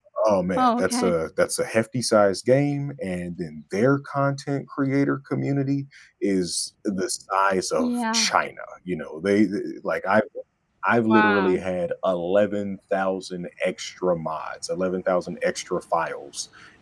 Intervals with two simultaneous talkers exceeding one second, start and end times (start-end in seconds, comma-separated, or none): none